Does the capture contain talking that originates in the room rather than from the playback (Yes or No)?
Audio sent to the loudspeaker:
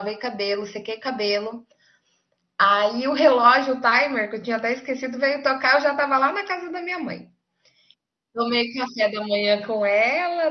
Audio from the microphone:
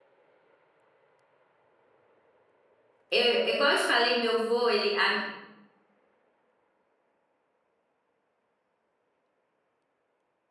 Yes